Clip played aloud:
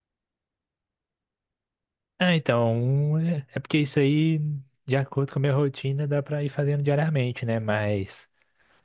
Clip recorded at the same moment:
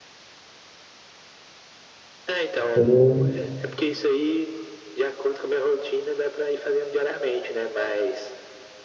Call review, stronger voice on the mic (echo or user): user